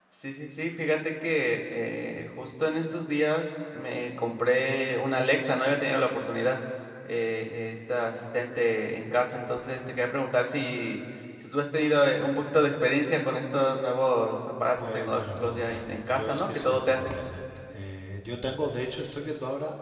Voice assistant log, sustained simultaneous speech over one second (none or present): present